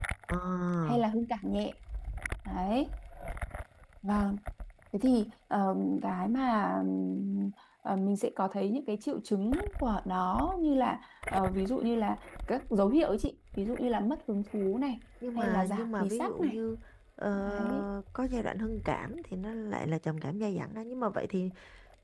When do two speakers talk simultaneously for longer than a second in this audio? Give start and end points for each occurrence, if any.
15.4-16.6

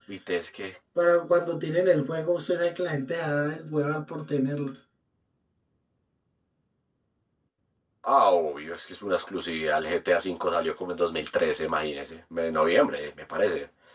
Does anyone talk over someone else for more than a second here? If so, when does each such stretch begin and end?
none

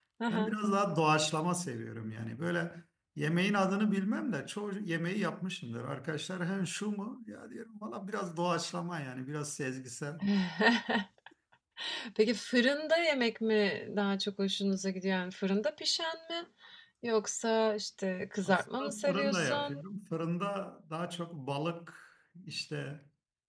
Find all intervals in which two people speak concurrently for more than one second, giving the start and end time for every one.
18.4-19.8

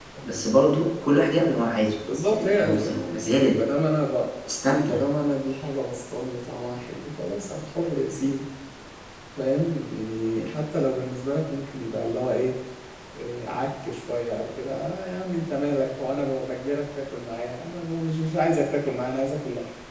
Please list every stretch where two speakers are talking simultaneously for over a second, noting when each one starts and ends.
2.3-3.6

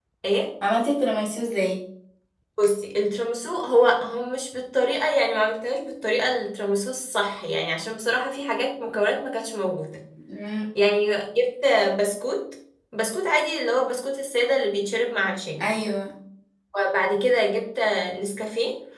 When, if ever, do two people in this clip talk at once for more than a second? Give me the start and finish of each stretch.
none

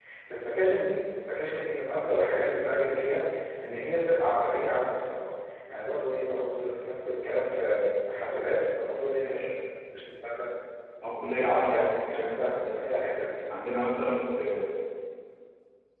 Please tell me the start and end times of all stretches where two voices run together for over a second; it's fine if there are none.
11.5-12.8

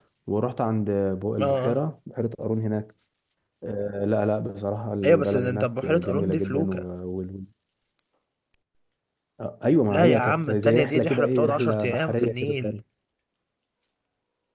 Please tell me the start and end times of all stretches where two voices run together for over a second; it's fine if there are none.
5.0-6.8, 9.9-12.7

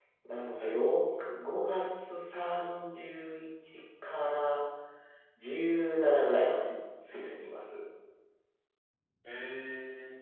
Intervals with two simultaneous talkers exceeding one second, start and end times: none

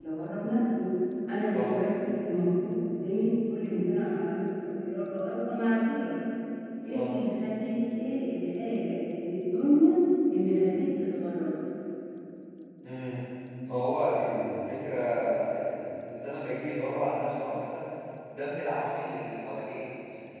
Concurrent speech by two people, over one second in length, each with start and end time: none

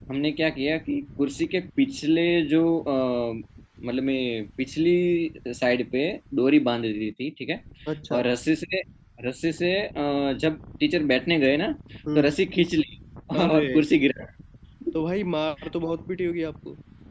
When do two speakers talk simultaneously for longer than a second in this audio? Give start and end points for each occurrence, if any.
none

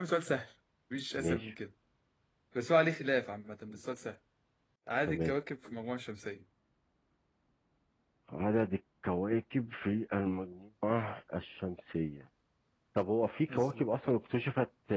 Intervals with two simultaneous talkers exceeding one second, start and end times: none

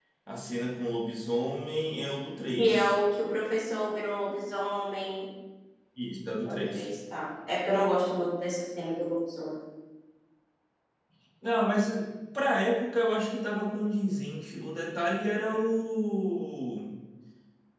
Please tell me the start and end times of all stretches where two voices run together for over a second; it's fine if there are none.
none

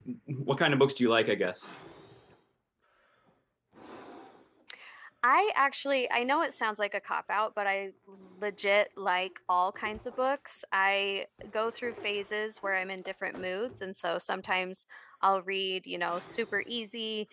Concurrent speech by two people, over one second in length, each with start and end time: none

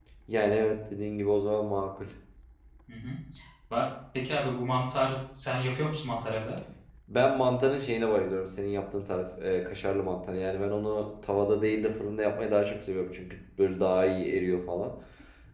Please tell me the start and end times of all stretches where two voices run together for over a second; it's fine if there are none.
none

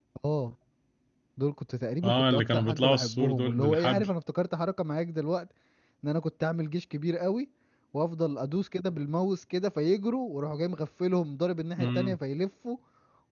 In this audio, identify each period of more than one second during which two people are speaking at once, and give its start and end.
2.0-4.1

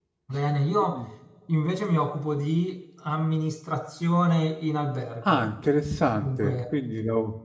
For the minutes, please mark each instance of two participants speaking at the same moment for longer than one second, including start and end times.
none

